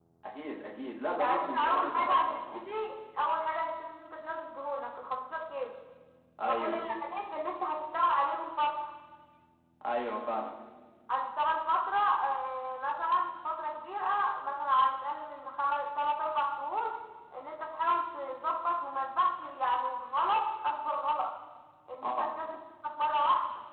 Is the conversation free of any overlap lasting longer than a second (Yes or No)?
No